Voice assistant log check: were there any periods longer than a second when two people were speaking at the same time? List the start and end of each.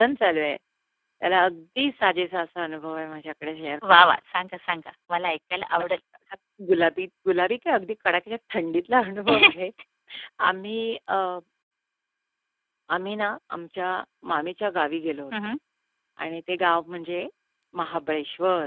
none

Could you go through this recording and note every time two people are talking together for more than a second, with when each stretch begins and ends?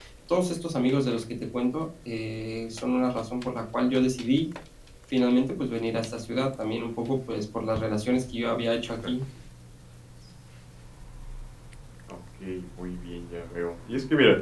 none

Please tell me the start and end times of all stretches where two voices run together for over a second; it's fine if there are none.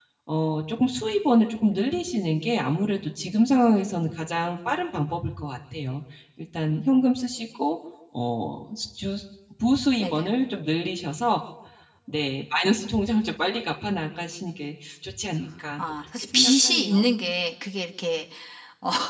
15.8-17.1

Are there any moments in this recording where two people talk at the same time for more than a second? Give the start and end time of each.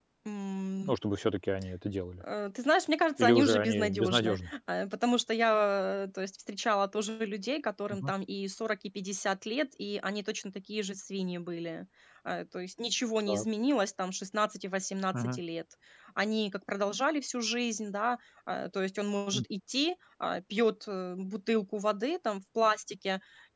3.2-4.5

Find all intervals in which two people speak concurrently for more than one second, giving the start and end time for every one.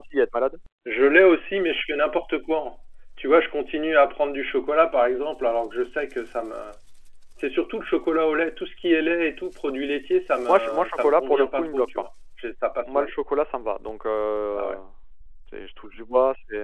10.5-11.9

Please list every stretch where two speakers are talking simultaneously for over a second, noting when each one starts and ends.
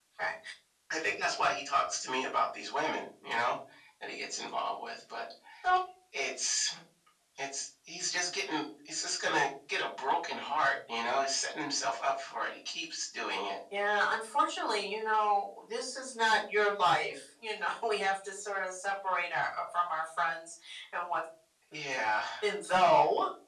none

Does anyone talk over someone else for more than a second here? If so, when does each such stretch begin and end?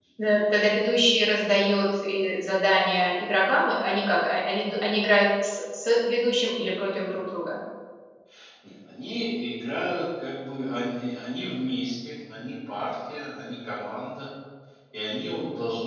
none

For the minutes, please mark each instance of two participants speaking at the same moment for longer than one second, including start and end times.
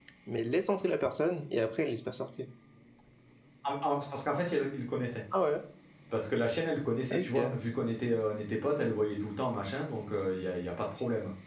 none

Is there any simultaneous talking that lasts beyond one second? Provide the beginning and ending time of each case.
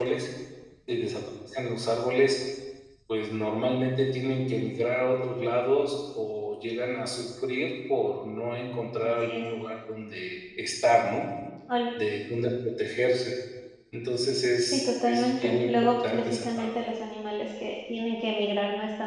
14.6-16.7

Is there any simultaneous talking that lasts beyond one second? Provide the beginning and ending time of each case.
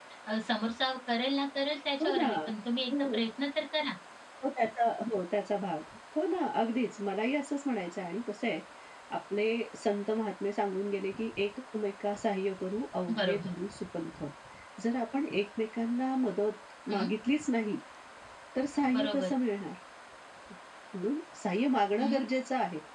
none

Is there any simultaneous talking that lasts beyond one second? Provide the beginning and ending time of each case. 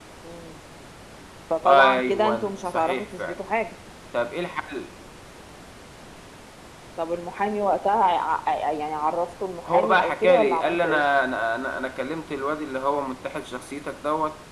1.7-3.3, 9.7-11.1

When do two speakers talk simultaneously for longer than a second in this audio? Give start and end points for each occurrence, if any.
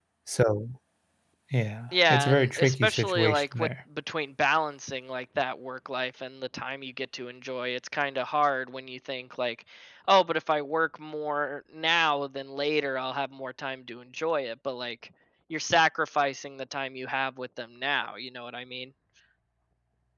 2.1-3.7

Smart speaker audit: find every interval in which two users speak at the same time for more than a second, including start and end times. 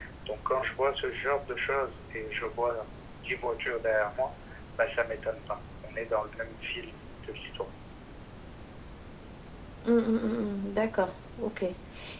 none

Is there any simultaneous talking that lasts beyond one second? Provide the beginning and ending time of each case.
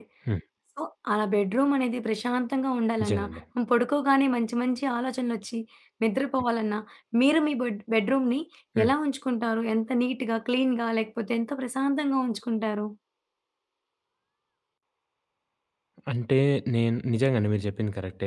none

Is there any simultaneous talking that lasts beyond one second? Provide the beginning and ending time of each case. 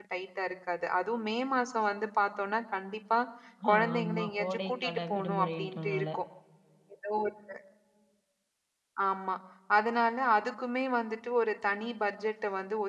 3.7-6.1

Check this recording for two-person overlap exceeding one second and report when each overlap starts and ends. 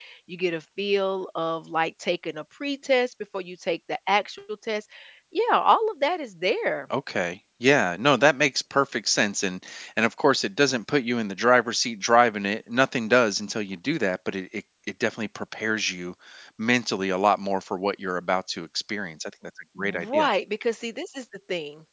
none

